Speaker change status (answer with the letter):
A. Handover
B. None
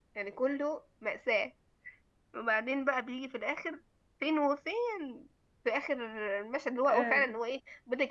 B